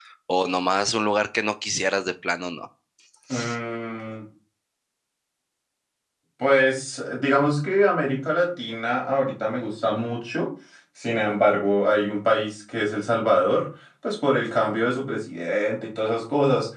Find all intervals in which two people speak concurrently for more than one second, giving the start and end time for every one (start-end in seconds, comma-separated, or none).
none